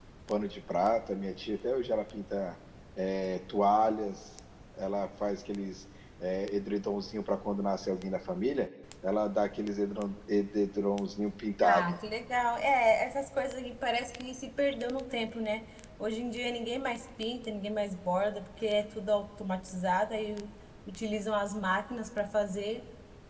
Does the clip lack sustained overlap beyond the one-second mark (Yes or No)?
Yes